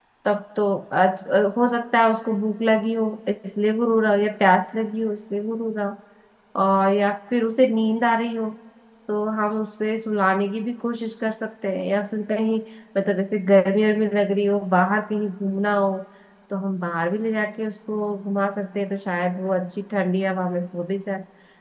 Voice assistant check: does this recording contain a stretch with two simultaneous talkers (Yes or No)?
No